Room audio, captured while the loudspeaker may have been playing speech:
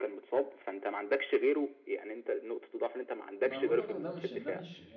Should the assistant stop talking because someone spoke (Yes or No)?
Yes